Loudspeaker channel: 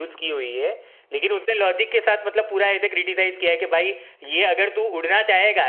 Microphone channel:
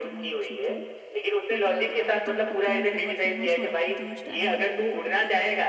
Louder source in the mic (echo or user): echo